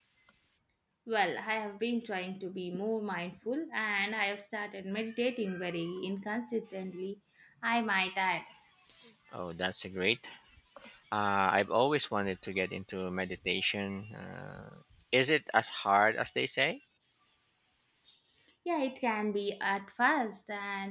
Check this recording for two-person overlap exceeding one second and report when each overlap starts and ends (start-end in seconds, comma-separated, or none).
none